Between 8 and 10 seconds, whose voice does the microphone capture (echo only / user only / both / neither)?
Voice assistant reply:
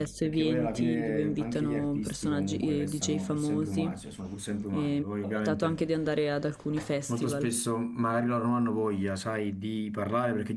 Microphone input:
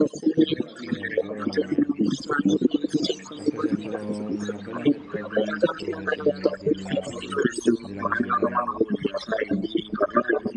both